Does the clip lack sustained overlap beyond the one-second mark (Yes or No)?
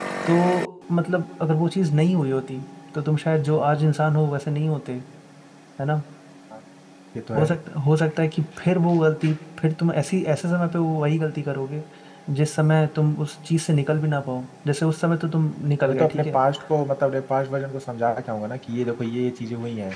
Yes